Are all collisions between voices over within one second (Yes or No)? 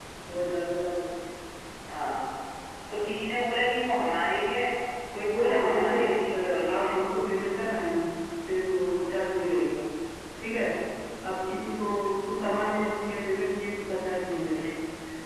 No